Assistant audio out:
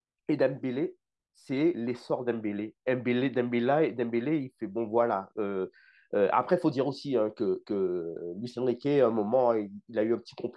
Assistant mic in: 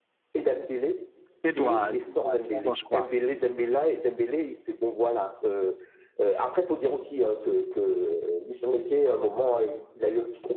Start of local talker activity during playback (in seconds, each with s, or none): 1.4 s